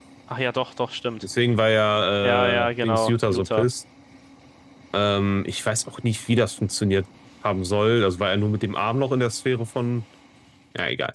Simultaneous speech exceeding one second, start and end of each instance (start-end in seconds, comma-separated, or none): 2.2-3.7